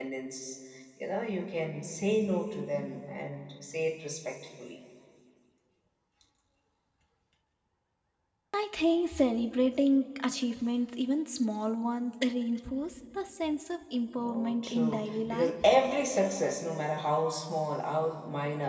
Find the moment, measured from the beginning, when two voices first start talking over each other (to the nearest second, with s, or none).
14 s